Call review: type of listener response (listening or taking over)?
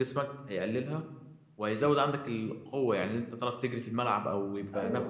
taking over